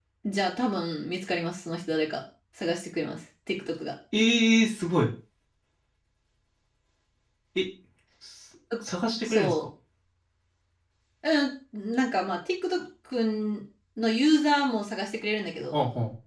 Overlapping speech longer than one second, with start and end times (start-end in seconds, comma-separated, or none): none